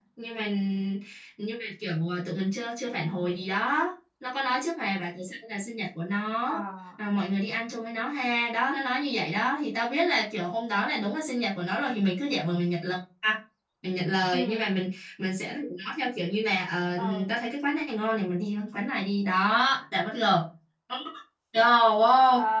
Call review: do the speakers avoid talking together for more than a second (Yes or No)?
Yes